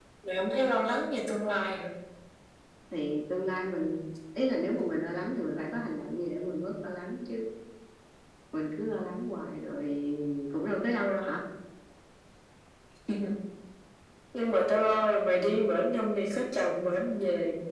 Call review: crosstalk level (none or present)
none